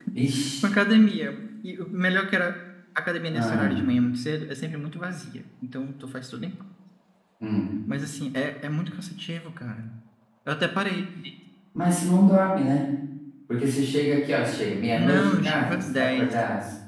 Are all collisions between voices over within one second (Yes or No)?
No